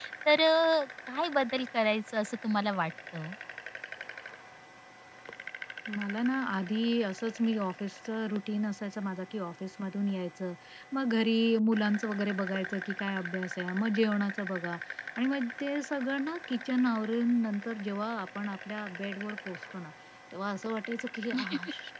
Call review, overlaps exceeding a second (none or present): none